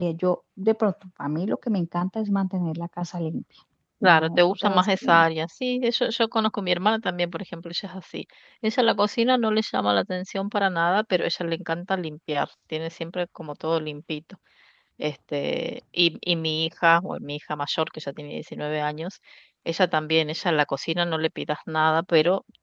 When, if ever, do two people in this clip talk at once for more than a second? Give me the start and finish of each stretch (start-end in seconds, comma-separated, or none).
4.0-5.2